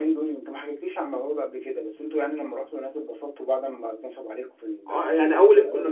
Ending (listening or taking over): taking over